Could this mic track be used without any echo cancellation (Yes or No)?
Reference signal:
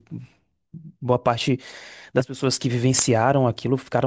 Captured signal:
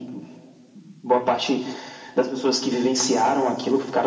No